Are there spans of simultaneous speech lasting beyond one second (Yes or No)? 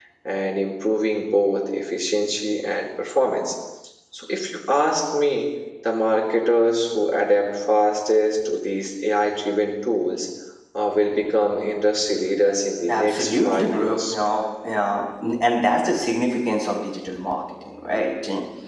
Yes